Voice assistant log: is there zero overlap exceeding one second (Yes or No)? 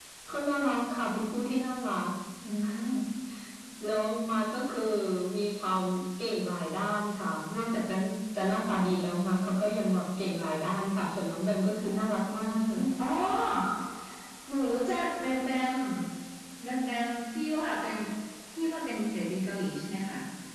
Yes